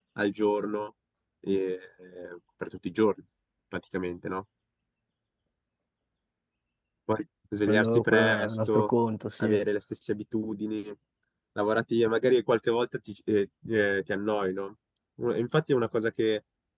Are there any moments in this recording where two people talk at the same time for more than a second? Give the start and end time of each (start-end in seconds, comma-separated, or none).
7.7-8.9